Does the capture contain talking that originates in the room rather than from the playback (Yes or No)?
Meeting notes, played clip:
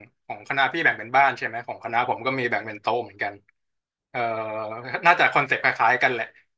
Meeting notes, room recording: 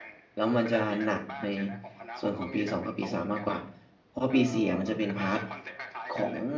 Yes